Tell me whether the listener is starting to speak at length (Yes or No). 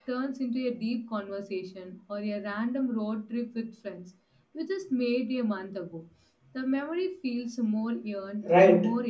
Yes